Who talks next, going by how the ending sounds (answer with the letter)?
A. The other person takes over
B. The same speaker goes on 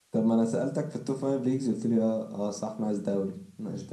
A